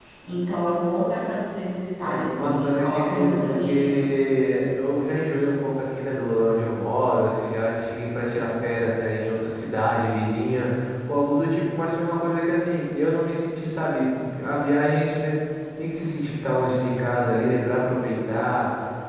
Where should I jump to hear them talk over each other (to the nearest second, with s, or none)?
2 s